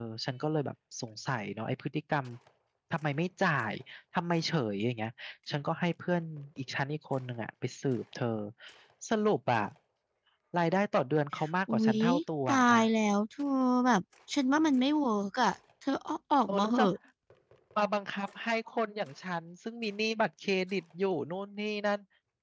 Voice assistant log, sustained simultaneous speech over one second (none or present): none